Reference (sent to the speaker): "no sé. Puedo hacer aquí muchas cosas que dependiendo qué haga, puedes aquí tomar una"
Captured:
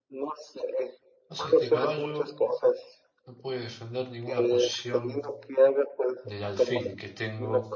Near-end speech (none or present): present